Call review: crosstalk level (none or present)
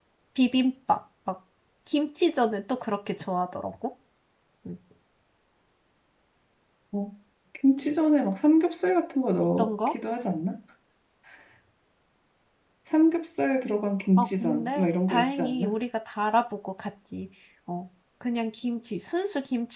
present